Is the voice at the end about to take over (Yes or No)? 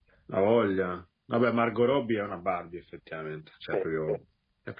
No